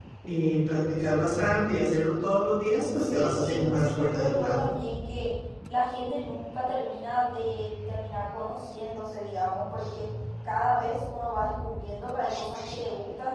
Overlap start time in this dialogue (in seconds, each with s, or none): 3.0 s